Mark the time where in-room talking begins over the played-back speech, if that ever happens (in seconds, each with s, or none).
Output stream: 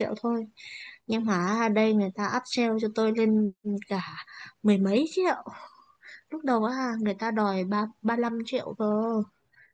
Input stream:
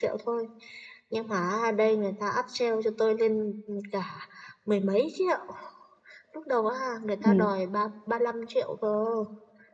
7.2 s